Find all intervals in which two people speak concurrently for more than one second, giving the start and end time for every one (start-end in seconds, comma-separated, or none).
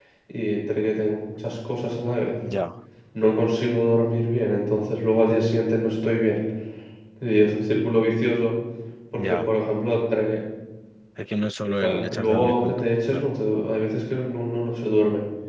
11.8-13.3